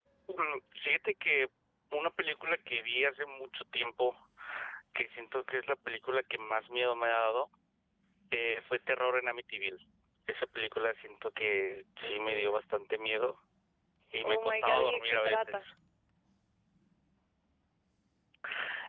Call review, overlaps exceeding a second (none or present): present